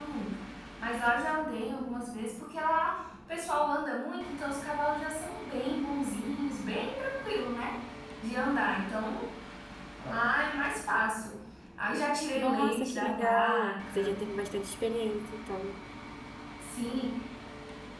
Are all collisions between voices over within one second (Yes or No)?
No